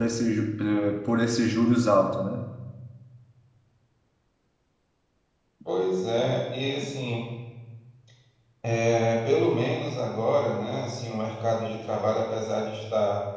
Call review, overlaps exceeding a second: none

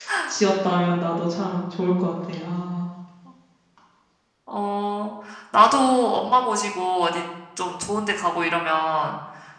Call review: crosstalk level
none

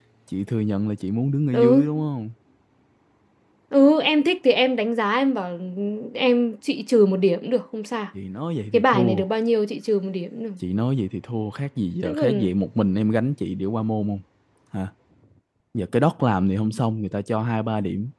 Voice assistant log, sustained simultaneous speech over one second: none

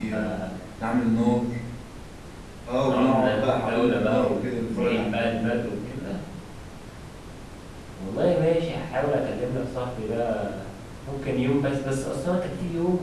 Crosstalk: present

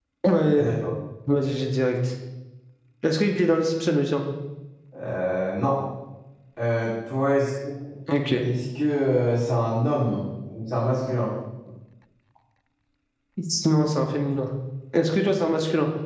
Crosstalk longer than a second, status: none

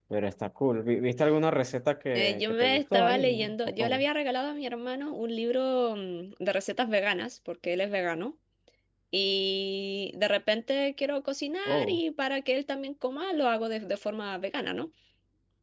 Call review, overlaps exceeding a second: present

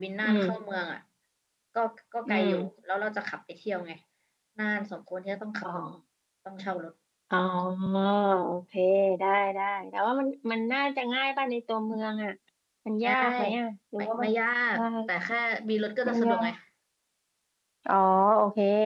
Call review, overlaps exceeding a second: none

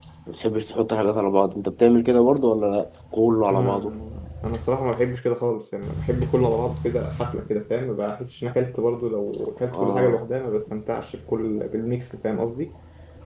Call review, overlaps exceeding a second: none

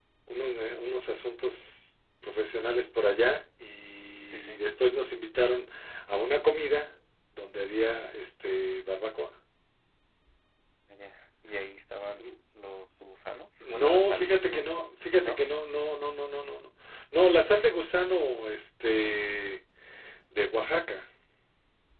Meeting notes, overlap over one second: present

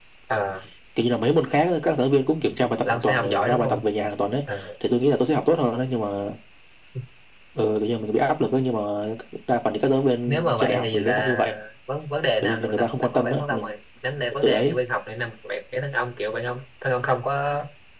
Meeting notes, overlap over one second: present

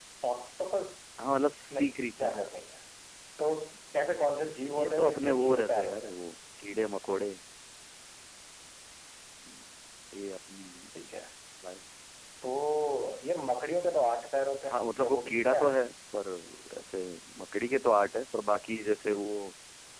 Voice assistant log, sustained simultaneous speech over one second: present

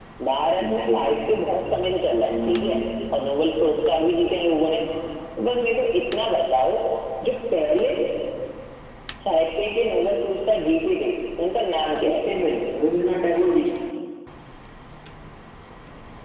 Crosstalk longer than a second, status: none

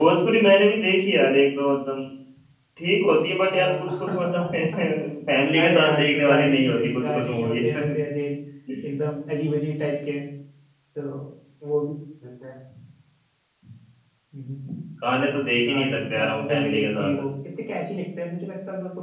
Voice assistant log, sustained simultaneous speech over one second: present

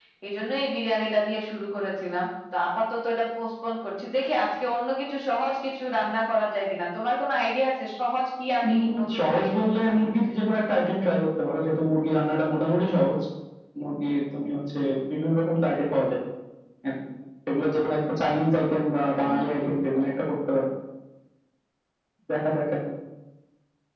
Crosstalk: present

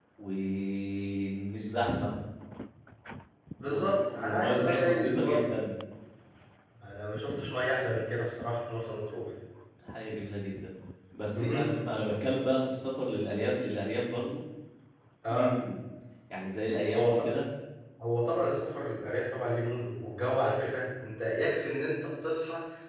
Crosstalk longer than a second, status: present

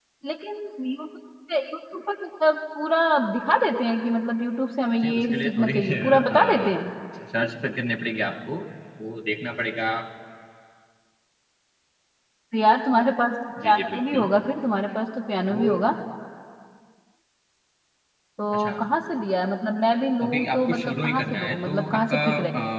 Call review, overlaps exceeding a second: present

